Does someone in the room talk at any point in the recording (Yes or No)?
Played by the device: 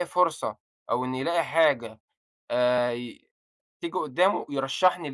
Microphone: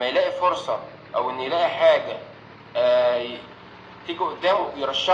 No